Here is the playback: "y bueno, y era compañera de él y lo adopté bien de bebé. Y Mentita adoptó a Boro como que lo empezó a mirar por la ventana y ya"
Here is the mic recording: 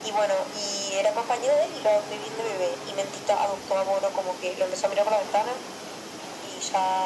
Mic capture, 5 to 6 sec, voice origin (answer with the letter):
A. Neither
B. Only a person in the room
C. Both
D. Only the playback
D